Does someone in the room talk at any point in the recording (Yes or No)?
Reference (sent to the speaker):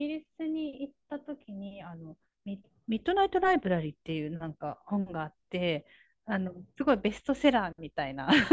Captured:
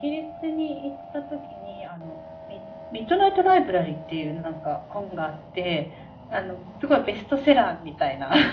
No